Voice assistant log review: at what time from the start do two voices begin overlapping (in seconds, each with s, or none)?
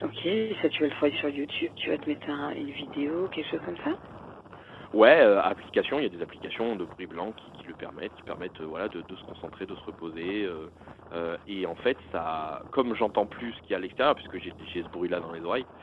none